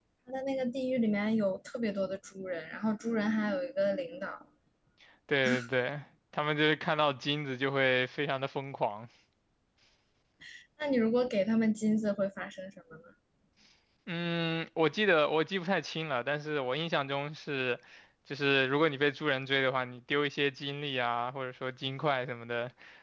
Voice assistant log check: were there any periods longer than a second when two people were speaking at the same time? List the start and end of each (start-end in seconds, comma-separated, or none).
none